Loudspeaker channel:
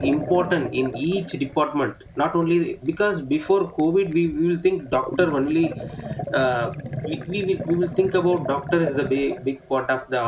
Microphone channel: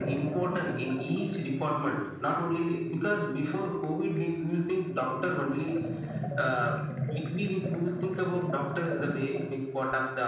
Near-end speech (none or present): none